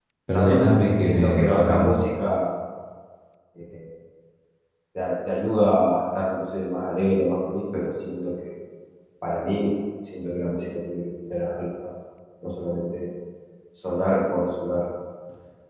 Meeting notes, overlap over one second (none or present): present